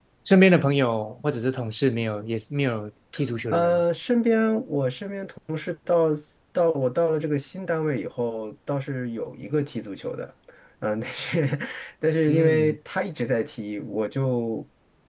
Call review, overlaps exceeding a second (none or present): none